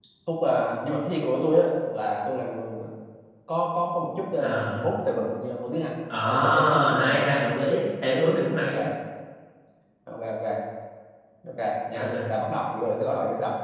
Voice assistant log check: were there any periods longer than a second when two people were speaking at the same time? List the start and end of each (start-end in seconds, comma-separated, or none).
6.3-7.5